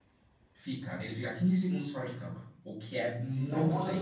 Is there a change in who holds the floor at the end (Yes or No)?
Yes